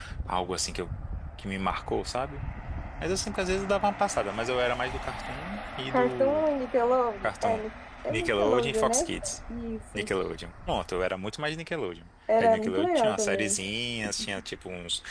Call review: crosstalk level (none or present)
present